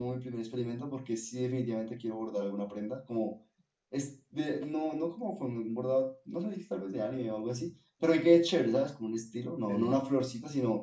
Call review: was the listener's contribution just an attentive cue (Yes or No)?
Yes